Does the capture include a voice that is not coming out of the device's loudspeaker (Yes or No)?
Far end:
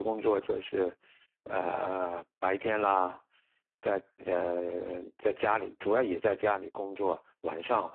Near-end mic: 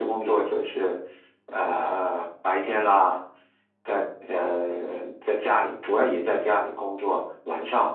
No